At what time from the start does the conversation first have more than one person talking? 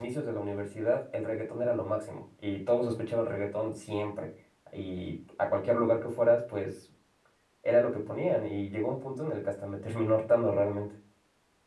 none

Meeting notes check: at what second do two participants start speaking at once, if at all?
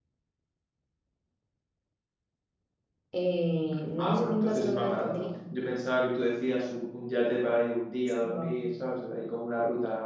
4.0 s

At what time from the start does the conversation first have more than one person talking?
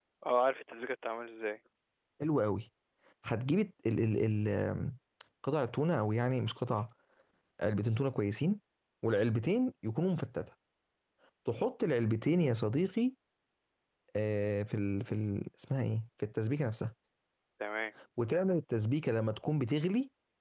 none

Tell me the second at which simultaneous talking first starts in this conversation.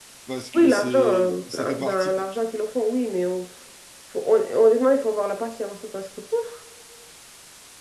0.5 s

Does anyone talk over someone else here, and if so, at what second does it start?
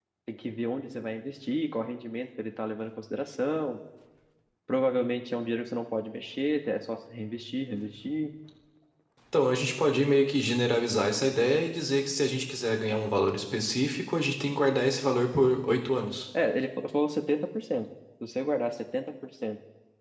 none

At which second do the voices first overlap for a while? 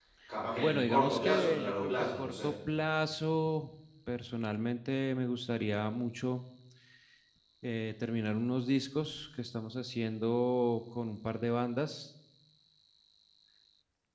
0.6 s

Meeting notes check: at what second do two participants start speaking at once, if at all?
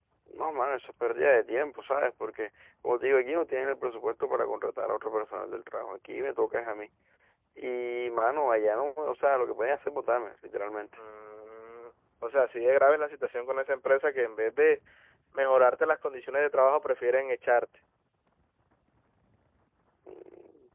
none

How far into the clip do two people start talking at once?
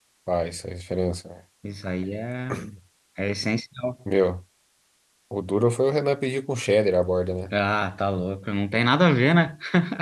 none

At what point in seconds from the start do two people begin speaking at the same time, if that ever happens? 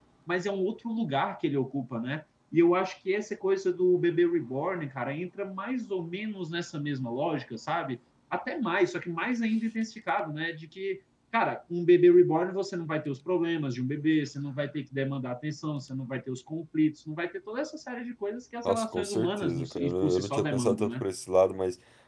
18.6 s

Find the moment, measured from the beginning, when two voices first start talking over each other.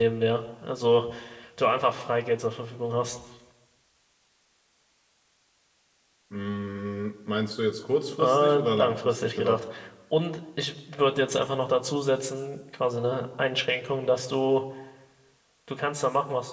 8.2 s

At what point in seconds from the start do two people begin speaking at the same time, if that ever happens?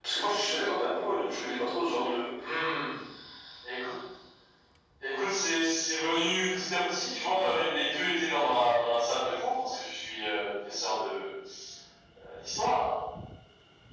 none

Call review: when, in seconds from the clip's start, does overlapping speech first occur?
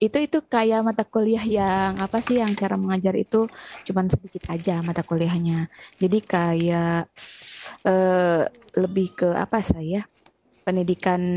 none

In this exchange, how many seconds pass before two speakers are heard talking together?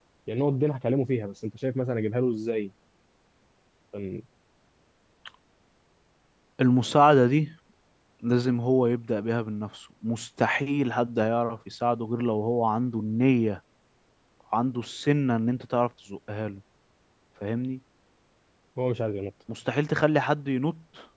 none

